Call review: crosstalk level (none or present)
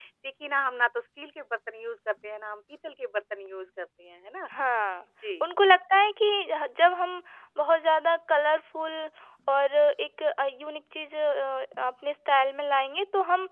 none